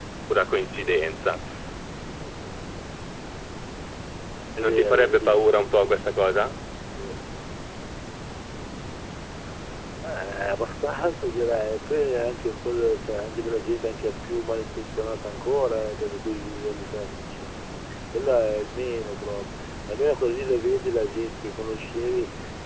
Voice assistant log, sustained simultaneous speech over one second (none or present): present